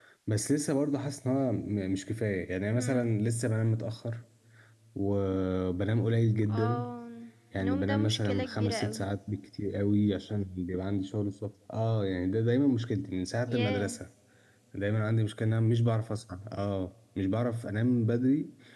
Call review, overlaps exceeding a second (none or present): present